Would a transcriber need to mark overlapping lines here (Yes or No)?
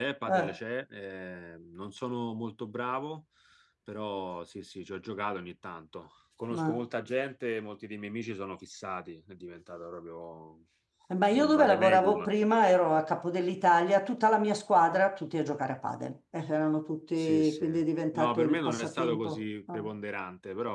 Yes